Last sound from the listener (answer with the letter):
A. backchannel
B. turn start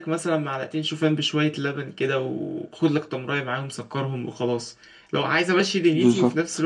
A